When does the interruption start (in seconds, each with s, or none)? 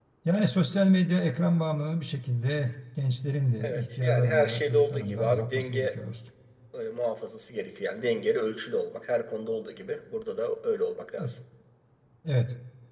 3.6 s